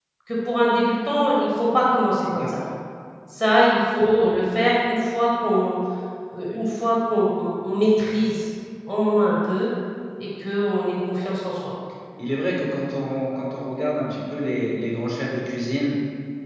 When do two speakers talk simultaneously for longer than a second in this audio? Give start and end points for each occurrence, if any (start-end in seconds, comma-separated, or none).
none